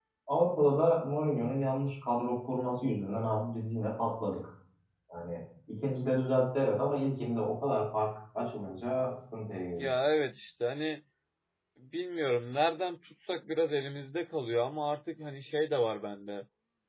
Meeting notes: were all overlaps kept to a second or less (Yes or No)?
Yes